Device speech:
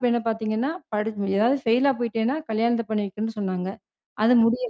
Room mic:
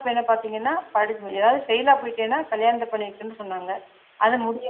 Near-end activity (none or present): none